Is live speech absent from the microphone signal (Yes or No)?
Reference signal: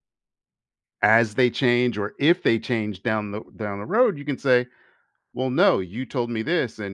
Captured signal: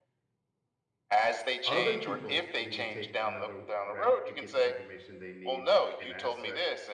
No